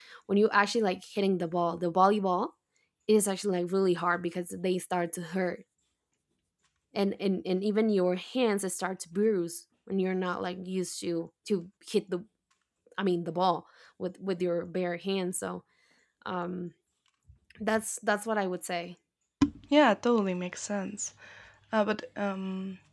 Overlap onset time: none

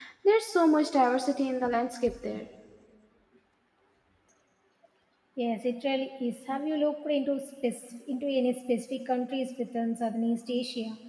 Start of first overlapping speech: none

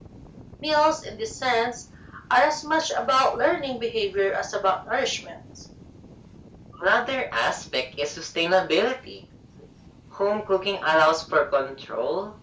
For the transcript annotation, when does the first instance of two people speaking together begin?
none

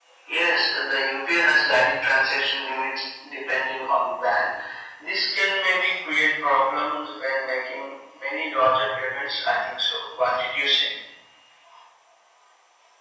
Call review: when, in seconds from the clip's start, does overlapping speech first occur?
none

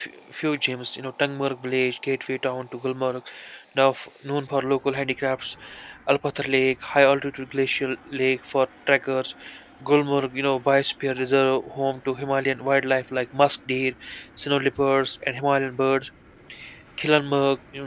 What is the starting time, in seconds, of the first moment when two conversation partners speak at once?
none

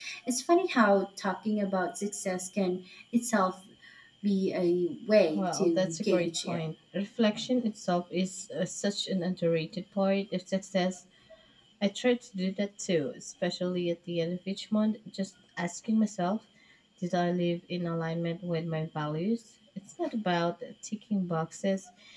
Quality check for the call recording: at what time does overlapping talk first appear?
5.3 s

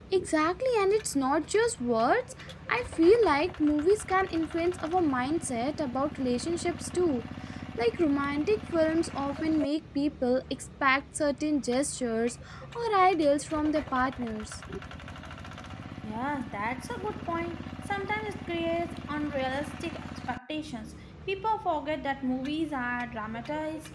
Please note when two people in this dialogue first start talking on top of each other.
none

